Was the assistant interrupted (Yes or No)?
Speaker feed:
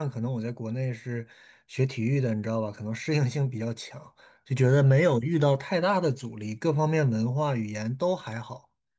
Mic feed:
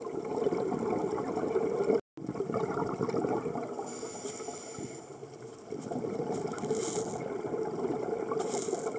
No